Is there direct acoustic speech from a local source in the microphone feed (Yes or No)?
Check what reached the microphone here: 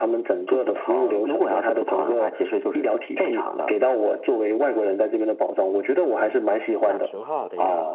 Yes